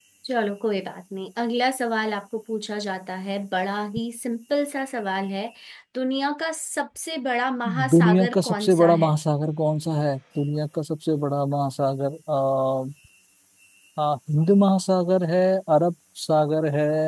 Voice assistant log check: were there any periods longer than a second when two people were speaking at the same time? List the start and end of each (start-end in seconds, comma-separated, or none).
7.9-9.1